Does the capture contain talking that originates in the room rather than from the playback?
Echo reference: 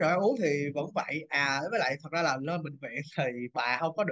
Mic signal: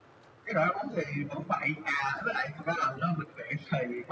No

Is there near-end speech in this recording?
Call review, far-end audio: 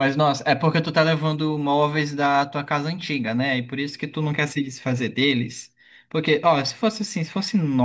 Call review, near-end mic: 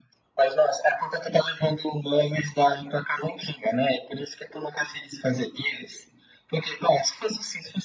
No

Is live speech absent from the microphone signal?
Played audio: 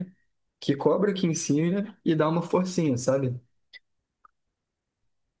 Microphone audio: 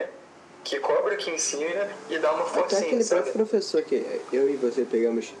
No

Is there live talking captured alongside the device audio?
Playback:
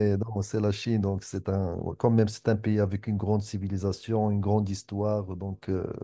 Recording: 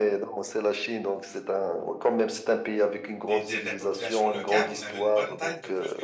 Yes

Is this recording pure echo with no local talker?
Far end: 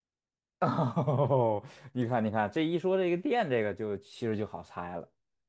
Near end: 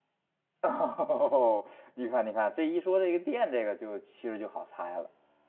Yes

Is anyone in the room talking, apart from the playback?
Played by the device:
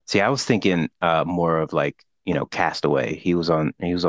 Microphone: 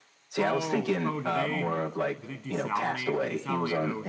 Yes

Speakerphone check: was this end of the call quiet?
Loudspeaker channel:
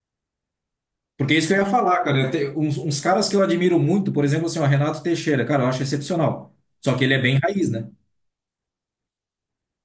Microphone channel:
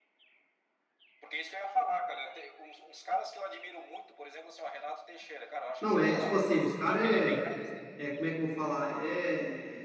No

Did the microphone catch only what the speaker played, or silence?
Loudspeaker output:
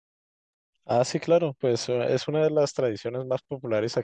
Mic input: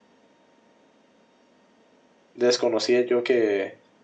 No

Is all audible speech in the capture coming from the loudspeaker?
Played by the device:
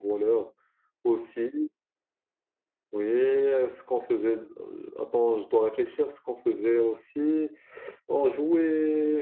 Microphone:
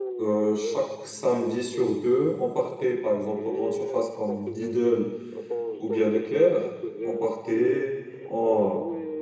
No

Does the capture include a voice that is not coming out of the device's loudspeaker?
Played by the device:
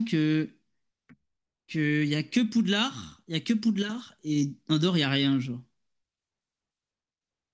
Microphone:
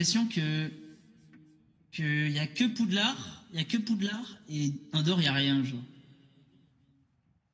No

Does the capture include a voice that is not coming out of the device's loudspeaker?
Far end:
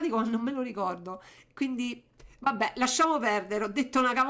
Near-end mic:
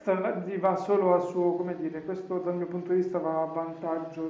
Yes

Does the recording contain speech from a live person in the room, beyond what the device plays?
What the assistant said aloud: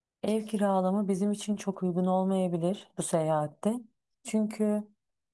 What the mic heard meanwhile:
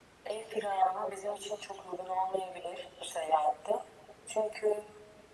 No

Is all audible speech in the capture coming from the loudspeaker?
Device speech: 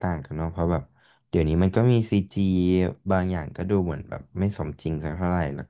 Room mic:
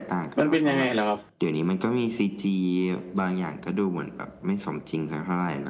No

